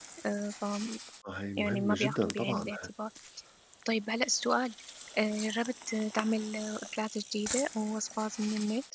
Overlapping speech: Yes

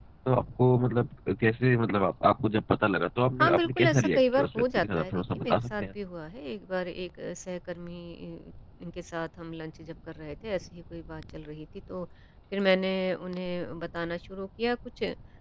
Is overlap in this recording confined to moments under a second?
No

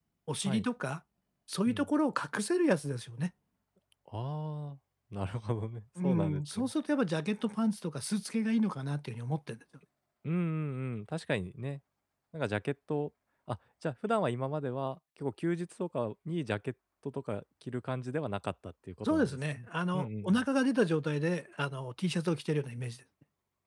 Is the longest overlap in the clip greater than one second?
Yes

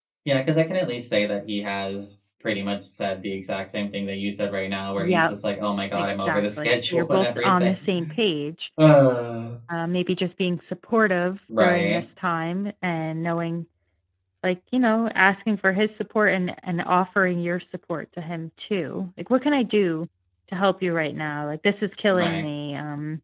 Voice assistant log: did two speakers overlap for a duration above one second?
Yes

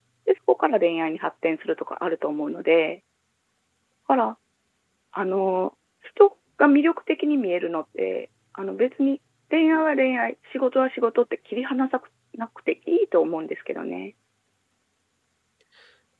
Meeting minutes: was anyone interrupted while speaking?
No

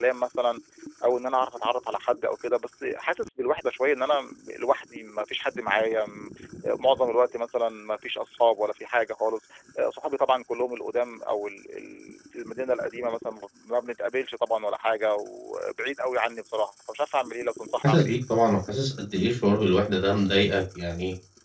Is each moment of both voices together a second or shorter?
Yes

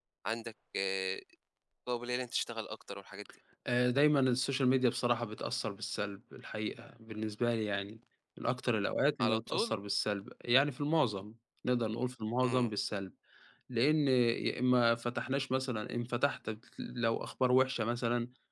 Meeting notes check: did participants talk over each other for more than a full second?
No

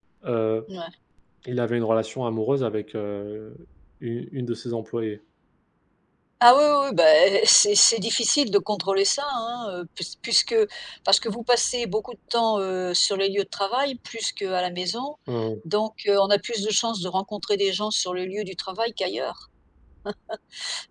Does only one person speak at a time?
Yes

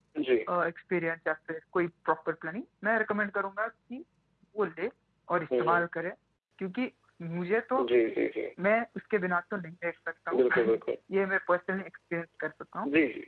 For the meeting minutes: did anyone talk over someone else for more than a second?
No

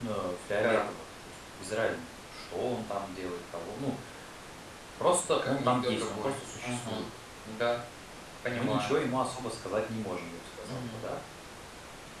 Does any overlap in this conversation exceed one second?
Yes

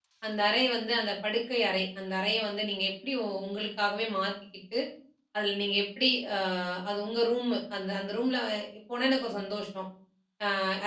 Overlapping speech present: No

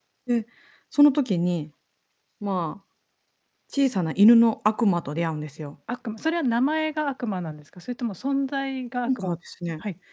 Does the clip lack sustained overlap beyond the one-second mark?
Yes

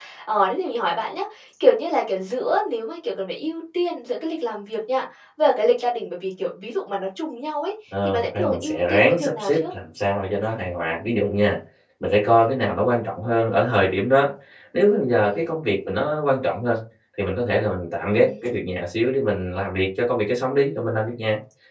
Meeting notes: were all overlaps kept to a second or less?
No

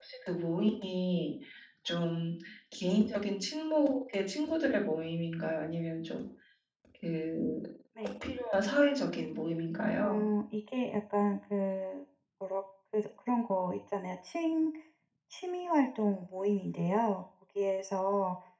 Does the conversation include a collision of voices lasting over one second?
No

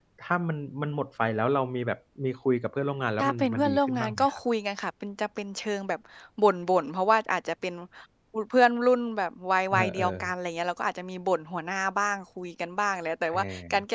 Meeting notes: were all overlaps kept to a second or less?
No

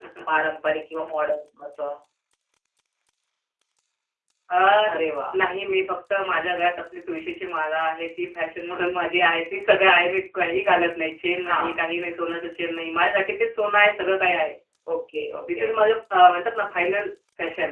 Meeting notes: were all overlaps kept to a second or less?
Yes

